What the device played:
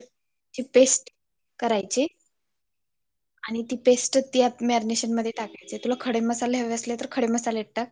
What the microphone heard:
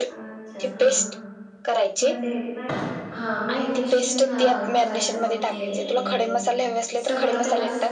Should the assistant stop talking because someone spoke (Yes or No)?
Yes